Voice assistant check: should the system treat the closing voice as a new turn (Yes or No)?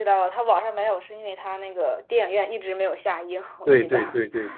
Yes